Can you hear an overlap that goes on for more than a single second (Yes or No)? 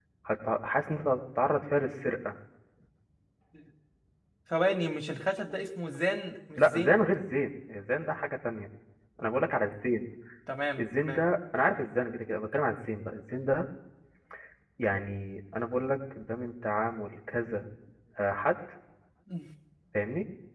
No